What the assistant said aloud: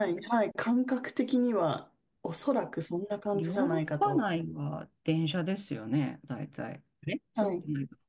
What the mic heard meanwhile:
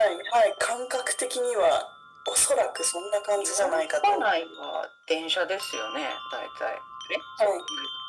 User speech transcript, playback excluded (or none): none